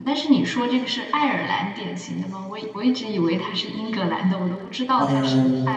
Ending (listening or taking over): taking over